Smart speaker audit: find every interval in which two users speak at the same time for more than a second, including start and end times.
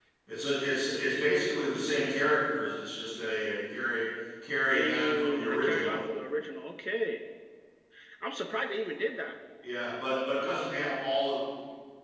4.7-5.9

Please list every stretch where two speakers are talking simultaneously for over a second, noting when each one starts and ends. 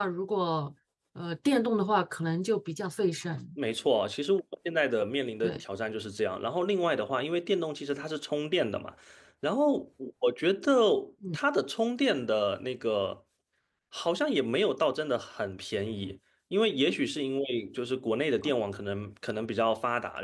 none

